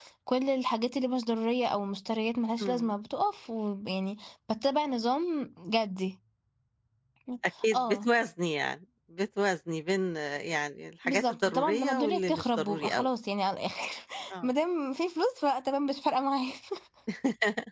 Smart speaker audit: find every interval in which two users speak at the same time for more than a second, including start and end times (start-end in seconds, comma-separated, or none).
11.1-13.1